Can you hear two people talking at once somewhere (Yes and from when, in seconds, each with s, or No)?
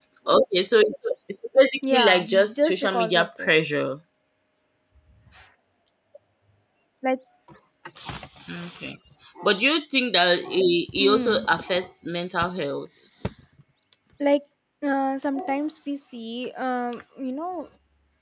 Yes, from 1.9 s